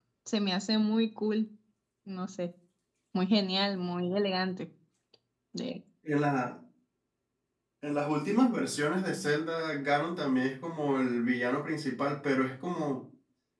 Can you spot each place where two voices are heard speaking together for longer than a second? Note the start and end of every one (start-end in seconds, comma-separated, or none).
none